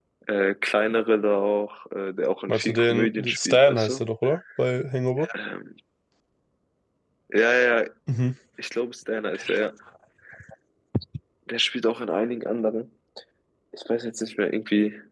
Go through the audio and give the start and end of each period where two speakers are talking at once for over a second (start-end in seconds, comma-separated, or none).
2.5-4.0